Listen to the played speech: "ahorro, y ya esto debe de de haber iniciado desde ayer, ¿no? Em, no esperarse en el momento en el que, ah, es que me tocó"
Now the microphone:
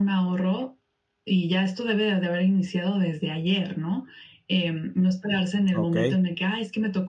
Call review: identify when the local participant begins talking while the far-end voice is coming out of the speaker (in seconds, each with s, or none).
5.7 s